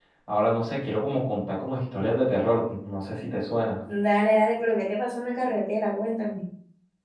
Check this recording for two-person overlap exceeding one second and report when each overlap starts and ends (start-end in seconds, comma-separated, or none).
none